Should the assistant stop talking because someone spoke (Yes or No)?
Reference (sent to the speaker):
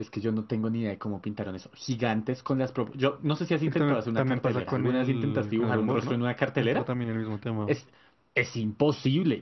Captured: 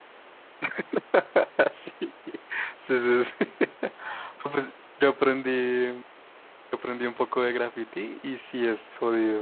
Yes